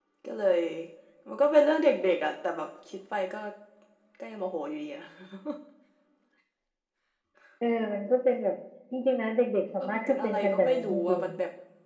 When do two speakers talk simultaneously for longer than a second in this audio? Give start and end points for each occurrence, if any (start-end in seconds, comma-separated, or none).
9.8-11.2